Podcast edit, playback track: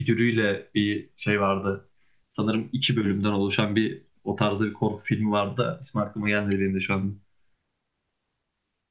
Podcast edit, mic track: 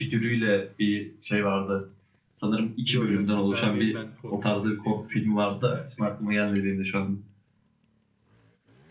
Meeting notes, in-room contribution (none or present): present